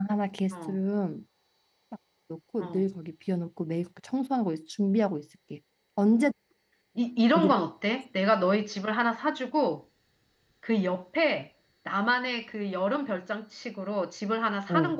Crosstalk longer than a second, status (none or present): none